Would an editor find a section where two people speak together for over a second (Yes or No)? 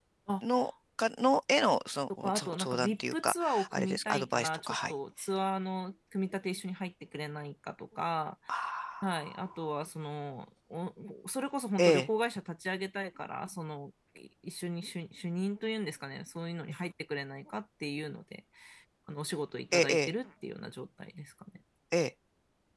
Yes